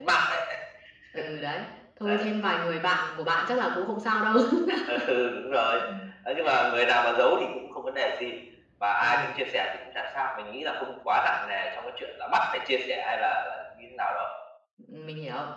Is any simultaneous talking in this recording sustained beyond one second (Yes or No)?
No